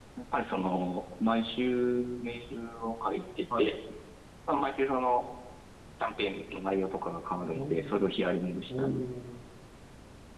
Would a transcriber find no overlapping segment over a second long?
Yes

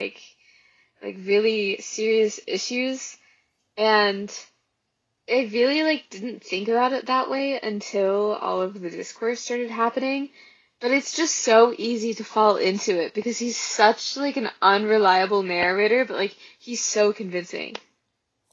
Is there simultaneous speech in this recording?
No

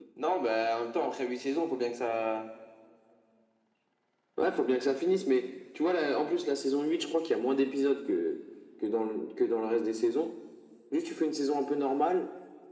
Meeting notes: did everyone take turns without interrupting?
Yes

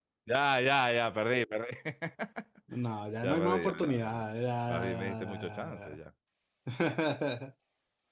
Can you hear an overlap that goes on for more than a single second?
Yes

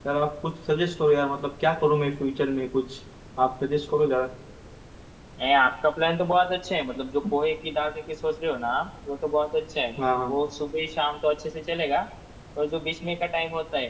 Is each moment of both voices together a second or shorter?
Yes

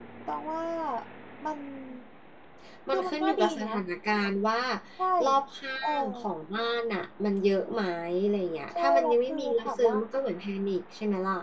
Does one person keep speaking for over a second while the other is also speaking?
Yes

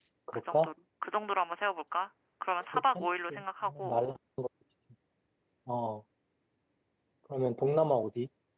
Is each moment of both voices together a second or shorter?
No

